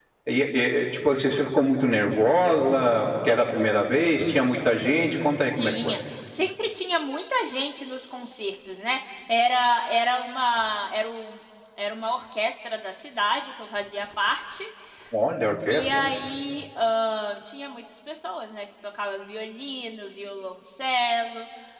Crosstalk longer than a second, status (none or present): none